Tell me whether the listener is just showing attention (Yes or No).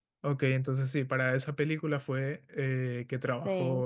Yes